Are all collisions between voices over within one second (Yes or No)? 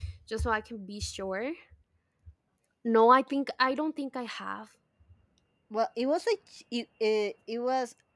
Yes